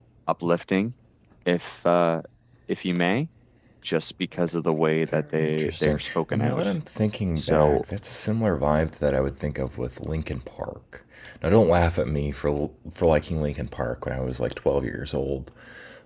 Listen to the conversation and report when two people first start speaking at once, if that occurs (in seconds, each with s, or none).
5.1 s